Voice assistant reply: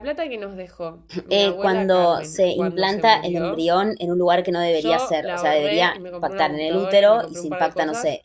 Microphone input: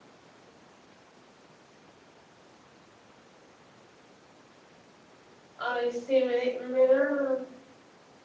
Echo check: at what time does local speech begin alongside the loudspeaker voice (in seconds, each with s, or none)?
5.6 s